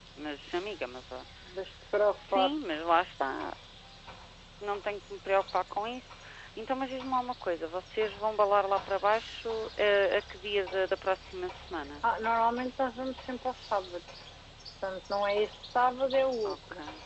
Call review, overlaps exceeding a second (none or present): none